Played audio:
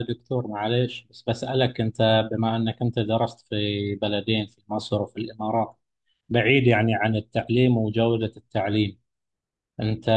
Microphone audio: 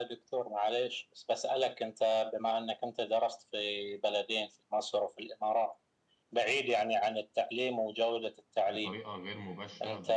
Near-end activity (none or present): present